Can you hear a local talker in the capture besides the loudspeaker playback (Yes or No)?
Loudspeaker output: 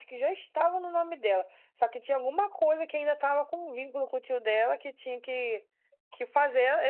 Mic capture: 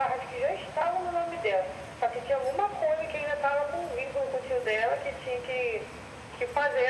No